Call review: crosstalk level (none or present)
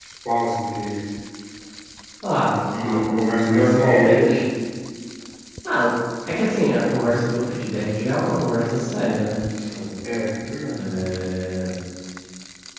present